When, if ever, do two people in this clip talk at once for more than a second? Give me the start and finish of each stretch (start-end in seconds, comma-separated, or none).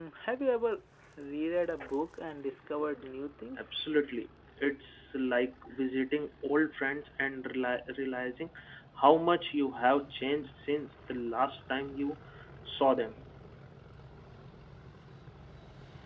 none